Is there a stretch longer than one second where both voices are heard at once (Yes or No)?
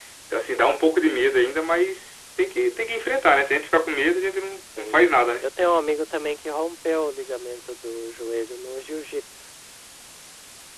No